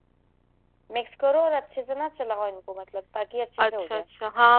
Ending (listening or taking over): taking over